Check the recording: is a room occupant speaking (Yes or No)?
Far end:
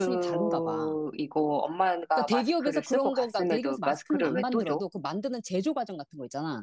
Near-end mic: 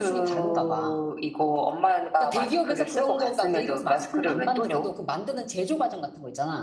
No